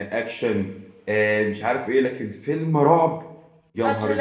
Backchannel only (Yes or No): No